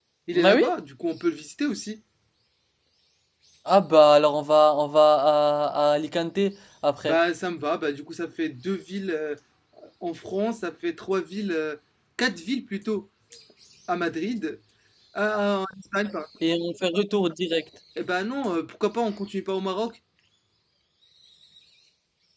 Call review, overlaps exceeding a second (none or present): none